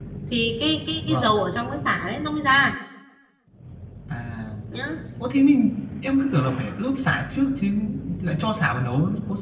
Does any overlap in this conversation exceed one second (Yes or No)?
No